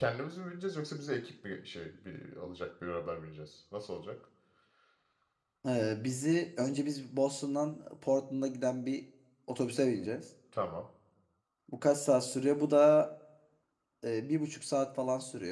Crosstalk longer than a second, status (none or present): none